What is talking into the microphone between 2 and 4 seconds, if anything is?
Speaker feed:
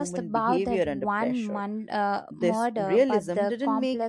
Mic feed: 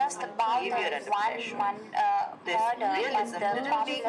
both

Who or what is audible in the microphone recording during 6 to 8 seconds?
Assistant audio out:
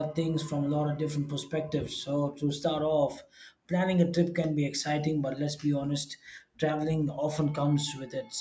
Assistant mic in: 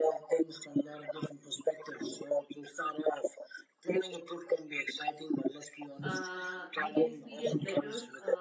both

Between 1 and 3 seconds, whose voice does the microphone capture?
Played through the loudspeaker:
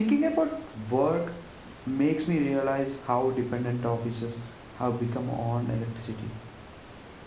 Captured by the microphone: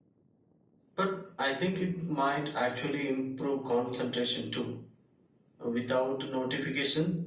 user only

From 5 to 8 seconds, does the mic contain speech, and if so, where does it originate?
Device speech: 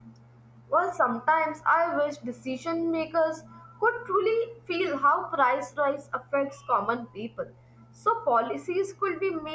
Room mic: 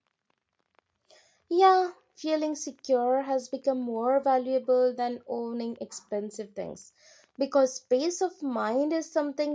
user only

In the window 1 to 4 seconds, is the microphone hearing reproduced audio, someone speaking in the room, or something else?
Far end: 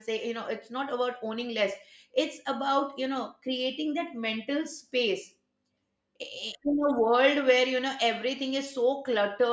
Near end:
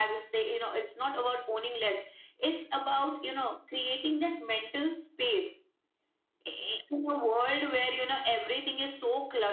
echo only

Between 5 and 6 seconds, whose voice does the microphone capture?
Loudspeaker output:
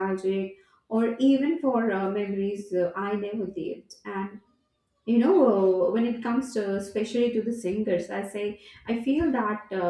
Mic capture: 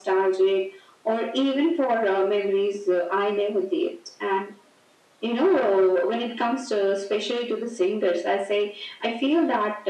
echo only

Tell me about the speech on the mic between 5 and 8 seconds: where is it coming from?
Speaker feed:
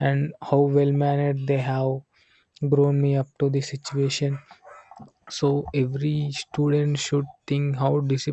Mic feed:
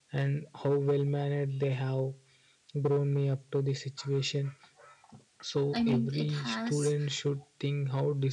both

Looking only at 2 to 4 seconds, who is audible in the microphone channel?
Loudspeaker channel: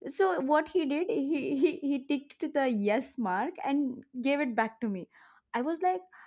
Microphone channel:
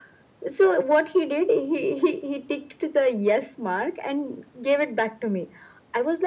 echo only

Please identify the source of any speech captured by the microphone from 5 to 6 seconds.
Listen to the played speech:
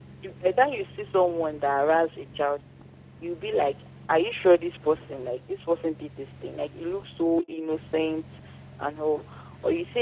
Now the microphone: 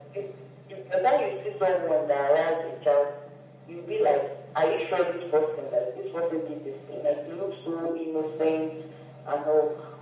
echo only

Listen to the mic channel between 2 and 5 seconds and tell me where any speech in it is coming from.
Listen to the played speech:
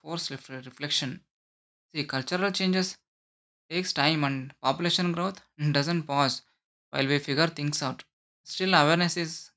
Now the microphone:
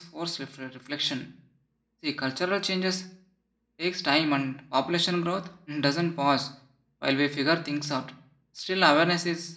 echo only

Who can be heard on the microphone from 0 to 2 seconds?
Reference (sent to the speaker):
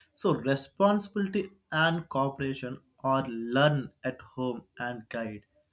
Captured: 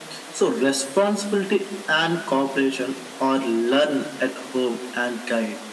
echo only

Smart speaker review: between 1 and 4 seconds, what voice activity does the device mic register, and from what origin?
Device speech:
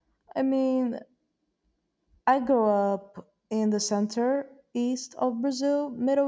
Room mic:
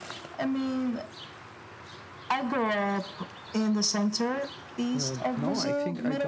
echo only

